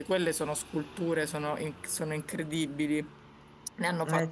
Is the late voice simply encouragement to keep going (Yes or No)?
Yes